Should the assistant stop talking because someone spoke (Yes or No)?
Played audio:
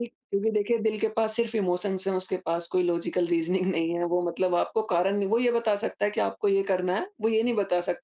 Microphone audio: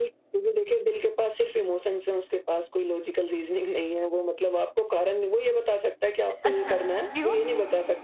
Yes